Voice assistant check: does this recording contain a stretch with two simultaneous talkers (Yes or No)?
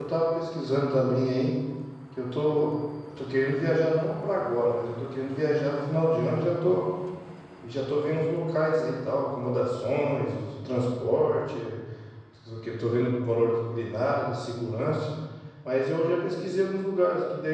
No